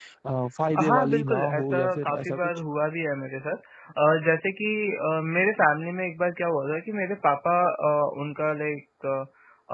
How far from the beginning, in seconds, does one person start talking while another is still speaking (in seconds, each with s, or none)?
0.8 s